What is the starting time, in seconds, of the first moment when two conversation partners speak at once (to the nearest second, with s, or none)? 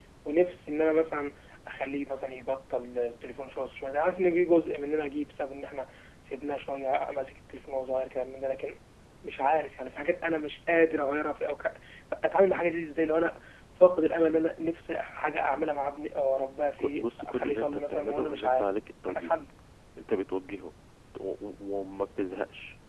17 s